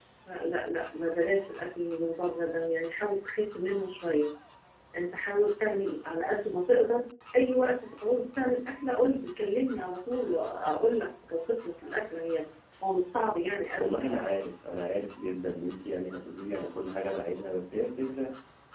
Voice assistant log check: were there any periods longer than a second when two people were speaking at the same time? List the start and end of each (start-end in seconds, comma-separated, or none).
none